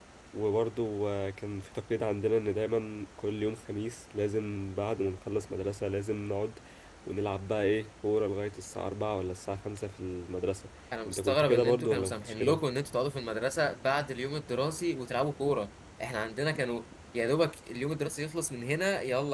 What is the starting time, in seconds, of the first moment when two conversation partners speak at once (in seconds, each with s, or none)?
11.1 s